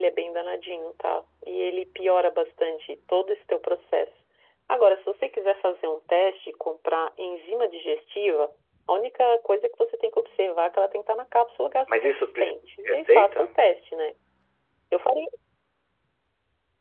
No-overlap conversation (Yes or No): No